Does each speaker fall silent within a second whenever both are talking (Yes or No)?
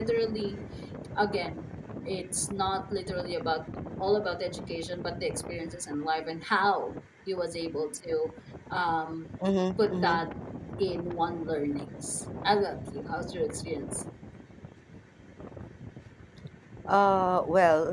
Yes